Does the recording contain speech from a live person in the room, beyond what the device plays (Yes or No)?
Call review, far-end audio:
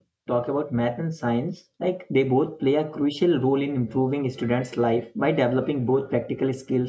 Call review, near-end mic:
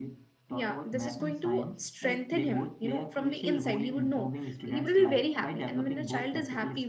Yes